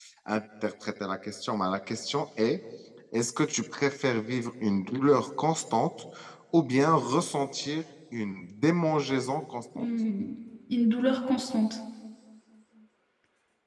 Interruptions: none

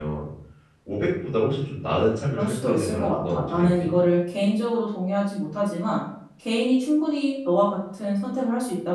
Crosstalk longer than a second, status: present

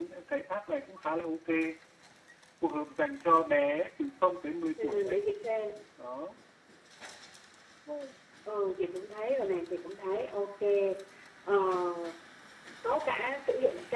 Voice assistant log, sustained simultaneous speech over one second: none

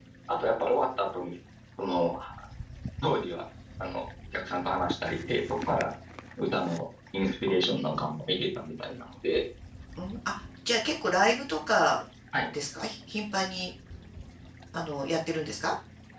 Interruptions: none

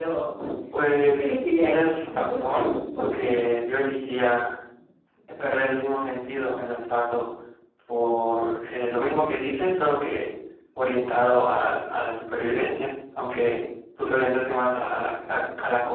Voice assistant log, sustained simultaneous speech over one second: present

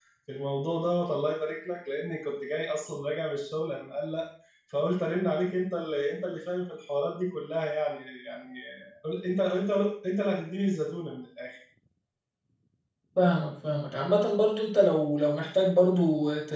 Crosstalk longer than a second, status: none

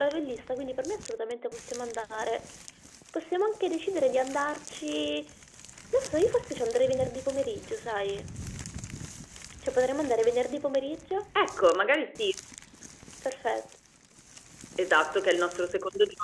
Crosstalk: none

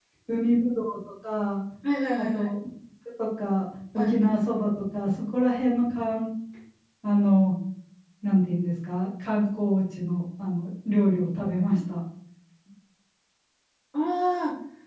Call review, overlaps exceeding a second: none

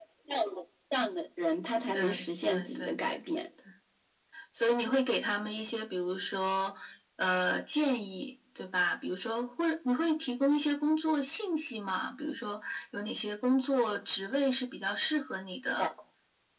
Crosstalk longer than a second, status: present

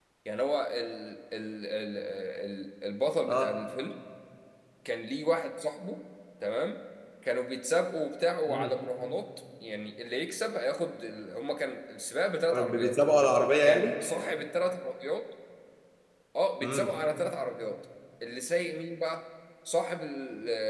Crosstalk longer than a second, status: none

